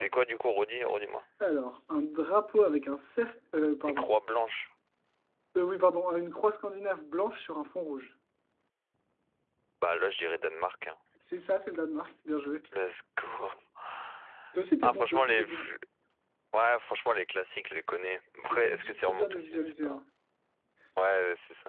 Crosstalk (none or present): present